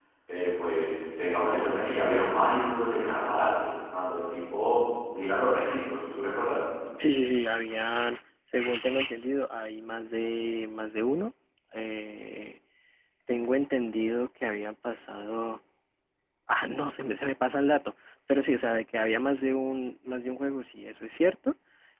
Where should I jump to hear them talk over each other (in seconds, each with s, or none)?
none